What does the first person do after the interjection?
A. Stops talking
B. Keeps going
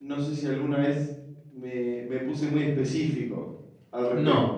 A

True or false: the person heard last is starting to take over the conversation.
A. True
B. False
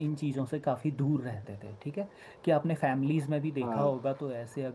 B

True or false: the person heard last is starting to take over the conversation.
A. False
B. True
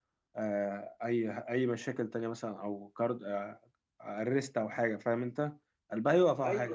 A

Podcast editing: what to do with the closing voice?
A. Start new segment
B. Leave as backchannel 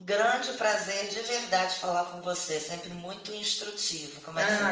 A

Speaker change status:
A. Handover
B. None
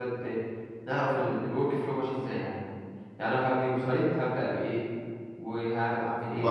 A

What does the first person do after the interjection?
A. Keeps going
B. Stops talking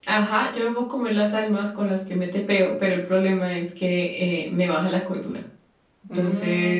B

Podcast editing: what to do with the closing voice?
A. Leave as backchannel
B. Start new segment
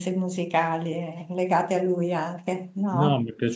B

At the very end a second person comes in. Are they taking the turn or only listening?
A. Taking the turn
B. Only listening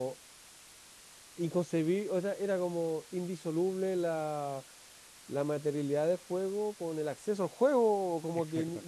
B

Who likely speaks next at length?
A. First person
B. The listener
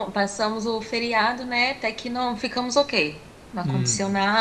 A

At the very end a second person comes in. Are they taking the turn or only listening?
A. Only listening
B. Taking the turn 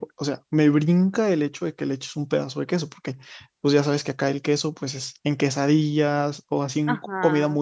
B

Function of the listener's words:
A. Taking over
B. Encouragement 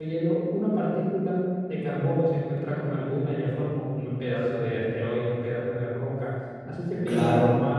B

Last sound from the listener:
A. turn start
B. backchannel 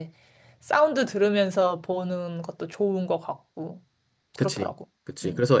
A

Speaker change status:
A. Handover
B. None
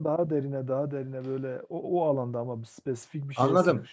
A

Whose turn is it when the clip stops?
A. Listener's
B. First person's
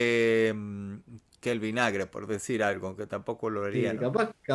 A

